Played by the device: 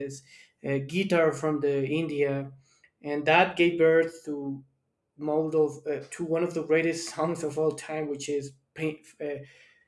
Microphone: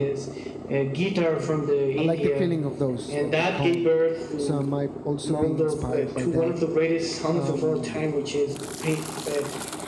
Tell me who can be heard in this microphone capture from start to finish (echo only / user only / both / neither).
both